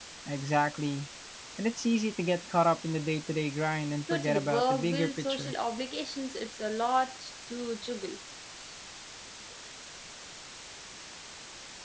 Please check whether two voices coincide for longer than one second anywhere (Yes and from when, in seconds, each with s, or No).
Yes, from 4.1 s